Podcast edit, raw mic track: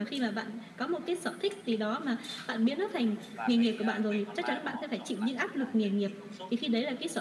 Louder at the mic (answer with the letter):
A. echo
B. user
A